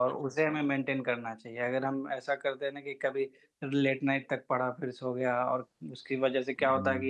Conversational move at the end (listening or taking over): listening